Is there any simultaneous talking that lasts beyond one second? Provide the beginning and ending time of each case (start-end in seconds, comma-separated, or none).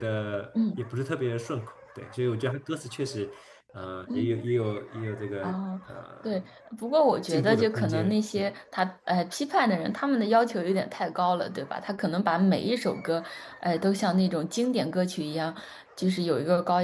7.3-8.5